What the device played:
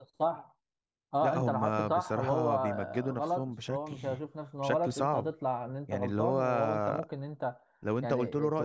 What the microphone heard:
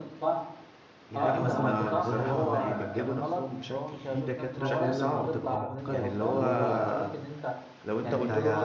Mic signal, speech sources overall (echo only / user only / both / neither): both